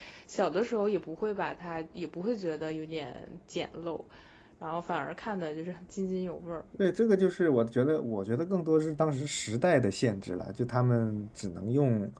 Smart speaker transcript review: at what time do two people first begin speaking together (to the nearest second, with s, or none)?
none